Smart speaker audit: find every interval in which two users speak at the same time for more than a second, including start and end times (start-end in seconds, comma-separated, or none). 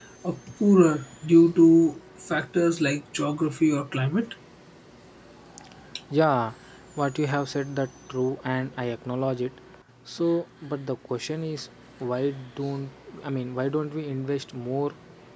none